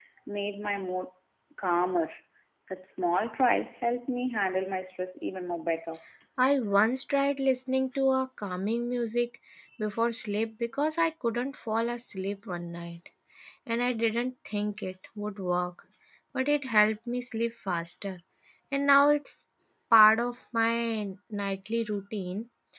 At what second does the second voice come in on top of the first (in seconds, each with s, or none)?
none